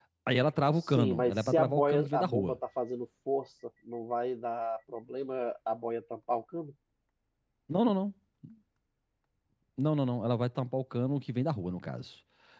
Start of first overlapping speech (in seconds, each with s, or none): 1.0 s